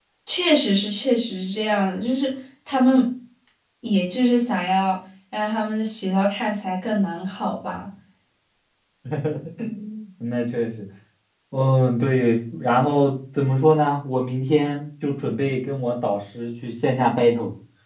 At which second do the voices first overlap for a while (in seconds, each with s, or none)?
none